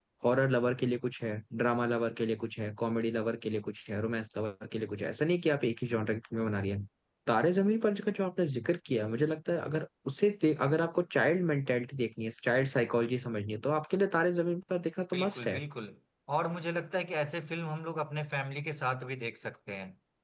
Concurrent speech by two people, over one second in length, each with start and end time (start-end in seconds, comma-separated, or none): none